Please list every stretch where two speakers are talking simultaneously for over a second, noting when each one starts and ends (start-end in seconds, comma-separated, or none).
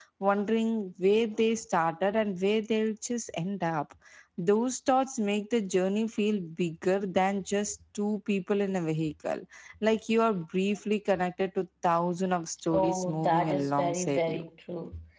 12.7-14.4